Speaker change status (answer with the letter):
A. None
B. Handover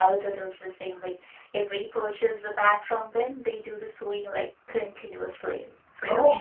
B